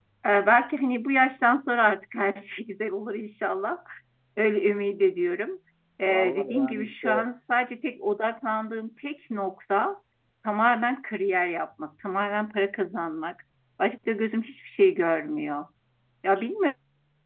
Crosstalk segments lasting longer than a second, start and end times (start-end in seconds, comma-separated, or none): 6.0-7.3